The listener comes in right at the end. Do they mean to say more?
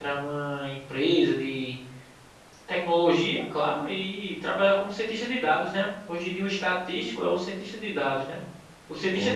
No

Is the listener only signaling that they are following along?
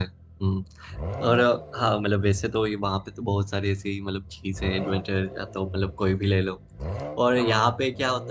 Yes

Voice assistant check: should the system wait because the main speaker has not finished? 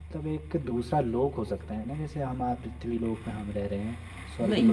Yes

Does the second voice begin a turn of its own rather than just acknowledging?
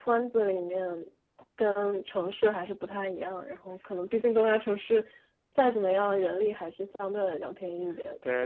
Yes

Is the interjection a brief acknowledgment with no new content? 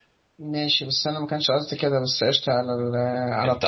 Yes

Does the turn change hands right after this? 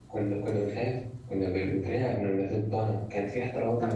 Yes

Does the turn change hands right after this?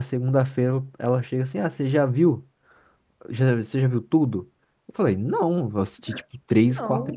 No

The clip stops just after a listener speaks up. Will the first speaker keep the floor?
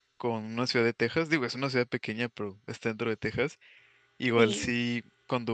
Yes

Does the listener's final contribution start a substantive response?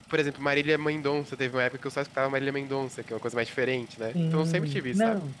Yes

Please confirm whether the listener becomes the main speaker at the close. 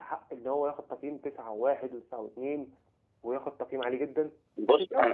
Yes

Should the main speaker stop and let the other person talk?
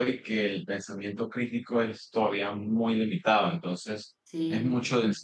No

